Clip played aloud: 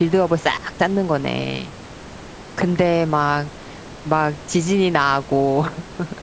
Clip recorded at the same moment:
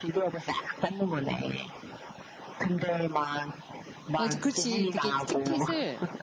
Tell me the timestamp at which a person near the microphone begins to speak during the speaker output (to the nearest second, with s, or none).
4 s